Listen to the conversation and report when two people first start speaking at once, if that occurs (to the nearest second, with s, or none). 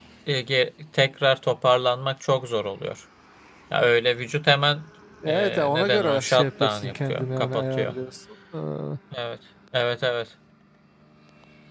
5 s